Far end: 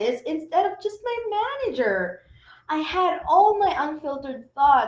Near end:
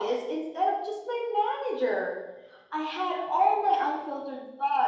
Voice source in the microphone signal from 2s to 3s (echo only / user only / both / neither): echo only